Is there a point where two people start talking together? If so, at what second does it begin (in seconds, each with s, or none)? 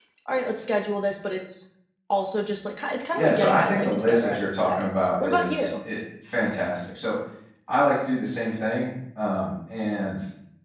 3.1 s